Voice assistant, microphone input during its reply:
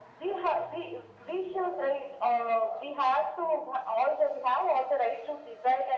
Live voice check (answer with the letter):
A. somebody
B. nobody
B